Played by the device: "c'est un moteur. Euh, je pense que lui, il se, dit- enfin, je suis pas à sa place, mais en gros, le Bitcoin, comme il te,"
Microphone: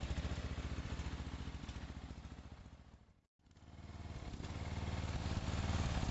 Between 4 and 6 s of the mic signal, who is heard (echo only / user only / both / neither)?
neither